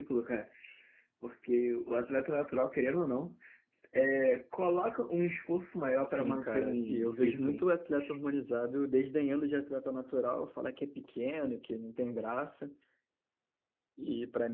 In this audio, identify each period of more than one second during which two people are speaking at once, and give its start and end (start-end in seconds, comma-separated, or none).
6.1-7.6